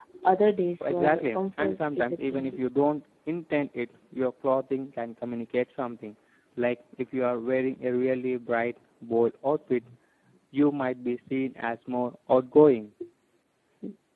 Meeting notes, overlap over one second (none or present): present